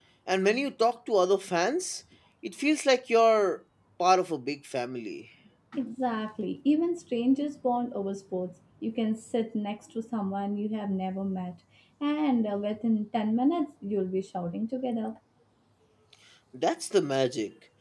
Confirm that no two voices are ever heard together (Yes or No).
Yes